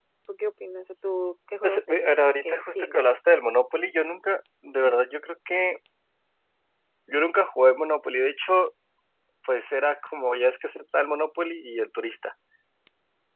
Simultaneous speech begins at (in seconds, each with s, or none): 1.6 s